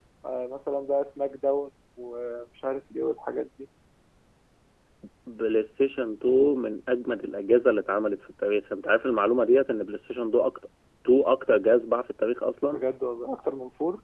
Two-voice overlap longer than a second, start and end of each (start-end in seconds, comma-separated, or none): none